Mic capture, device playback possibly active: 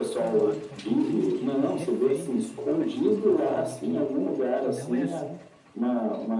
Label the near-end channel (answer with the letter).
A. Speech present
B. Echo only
A